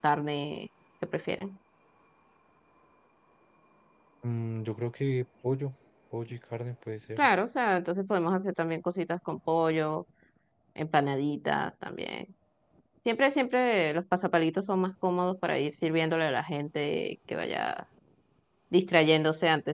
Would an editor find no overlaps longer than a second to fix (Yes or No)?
Yes